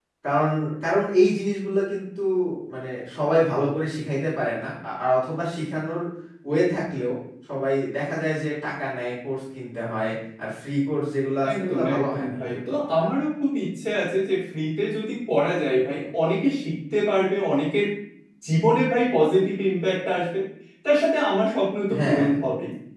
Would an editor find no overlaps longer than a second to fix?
No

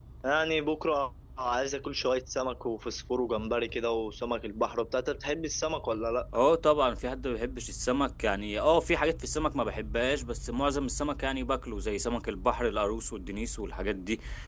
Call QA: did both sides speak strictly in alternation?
Yes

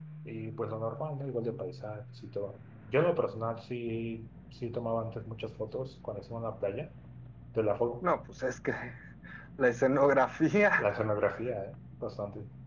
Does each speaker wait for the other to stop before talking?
Yes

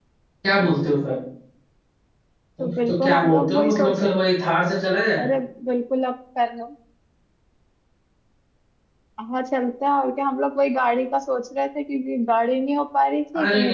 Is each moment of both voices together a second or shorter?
No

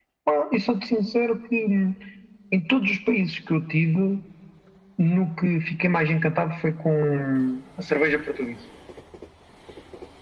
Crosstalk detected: No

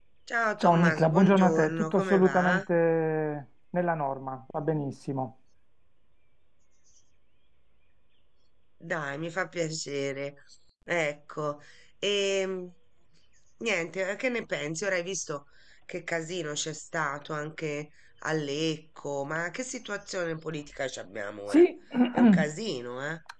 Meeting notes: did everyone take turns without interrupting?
No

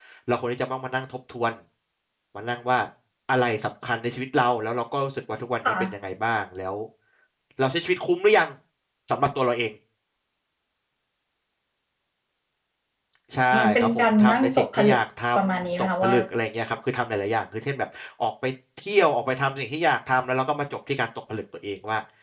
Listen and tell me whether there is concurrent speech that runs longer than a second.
Yes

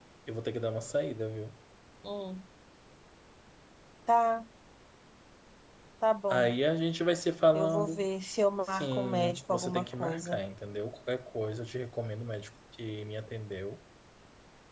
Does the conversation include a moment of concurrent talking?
Yes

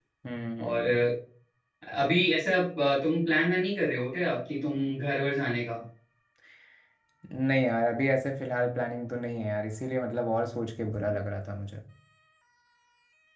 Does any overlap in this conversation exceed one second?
No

